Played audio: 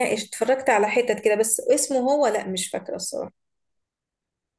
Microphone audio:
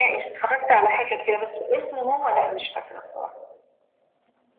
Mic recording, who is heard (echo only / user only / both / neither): echo only